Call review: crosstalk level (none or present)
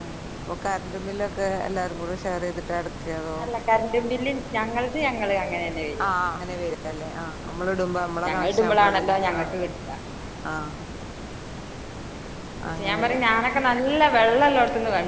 present